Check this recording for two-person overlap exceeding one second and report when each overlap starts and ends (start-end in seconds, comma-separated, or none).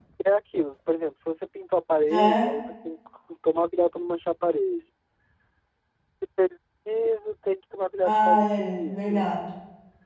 8.0-9.3